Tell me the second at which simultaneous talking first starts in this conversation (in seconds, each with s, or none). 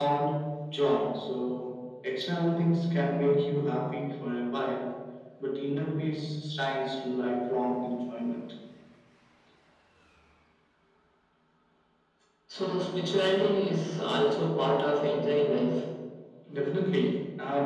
none